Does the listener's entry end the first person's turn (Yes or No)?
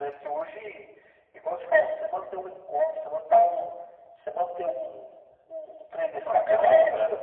No